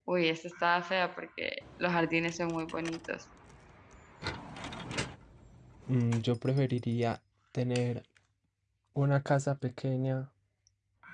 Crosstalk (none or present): none